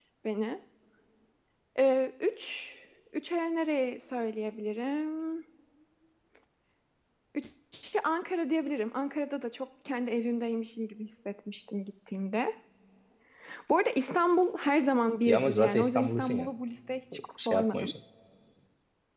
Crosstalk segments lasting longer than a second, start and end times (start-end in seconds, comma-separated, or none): 15.2-16.5